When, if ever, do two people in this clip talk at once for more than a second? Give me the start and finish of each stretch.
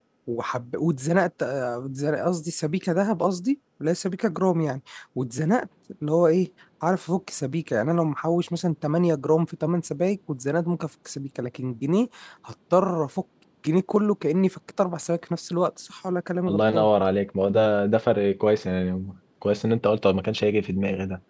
none

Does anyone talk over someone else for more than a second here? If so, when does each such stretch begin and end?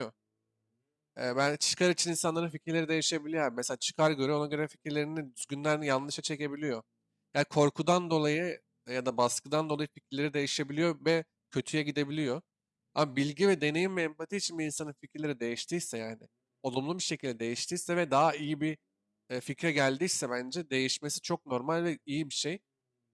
none

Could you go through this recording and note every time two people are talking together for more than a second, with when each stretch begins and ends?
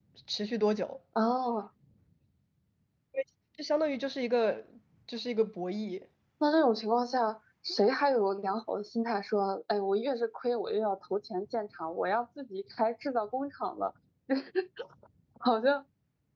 none

